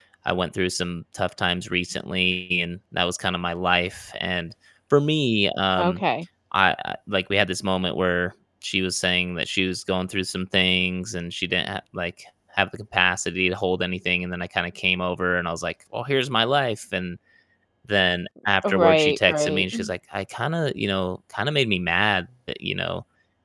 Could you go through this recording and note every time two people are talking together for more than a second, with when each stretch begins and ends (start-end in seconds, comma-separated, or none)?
18.6-19.9